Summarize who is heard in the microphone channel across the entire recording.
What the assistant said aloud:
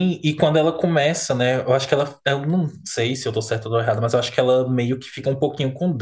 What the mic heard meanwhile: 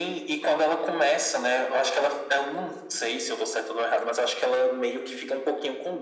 echo only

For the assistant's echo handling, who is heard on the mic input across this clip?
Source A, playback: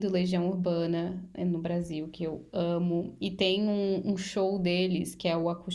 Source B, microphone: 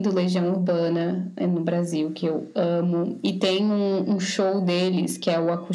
echo only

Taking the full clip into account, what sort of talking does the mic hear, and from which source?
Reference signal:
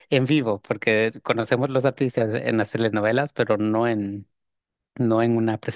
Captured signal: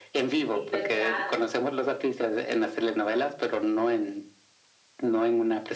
both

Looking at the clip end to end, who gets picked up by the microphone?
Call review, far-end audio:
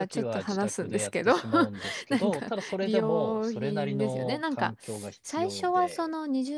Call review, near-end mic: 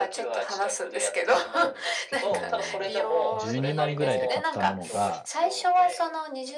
both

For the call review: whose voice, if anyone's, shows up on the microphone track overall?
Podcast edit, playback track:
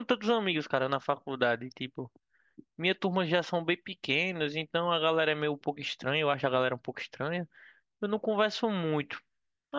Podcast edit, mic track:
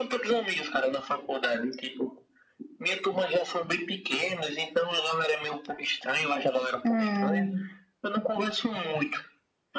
both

